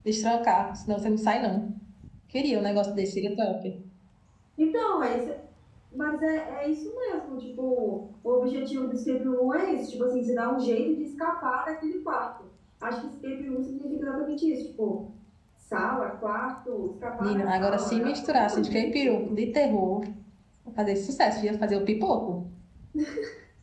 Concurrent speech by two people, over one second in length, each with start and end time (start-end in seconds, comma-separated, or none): 17.2-19.1